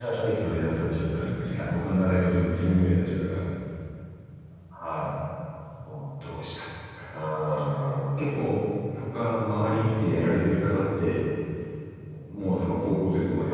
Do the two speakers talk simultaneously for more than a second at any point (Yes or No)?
Yes